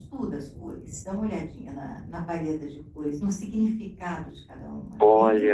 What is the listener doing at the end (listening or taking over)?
taking over